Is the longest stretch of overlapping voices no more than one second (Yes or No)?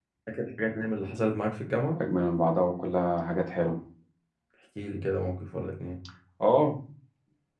Yes